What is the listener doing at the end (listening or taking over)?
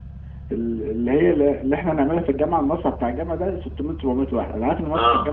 listening